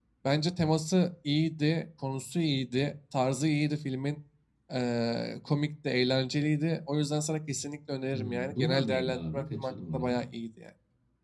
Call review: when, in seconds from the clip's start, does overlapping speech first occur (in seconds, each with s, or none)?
8.1 s